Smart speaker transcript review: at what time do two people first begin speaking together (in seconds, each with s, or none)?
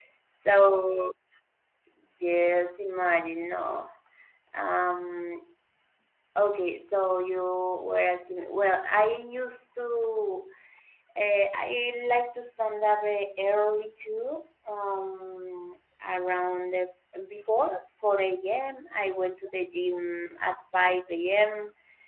none